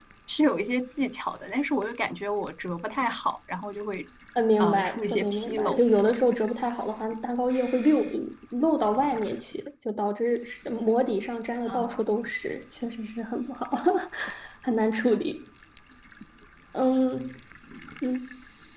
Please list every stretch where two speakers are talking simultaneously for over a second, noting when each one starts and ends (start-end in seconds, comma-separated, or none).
4.6-5.8